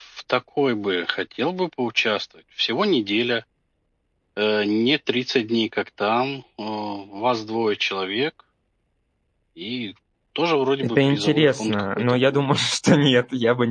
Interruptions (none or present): present